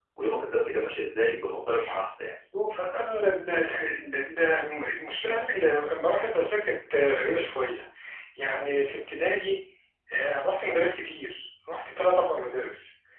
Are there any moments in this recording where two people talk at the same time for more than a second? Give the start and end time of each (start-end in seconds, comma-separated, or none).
none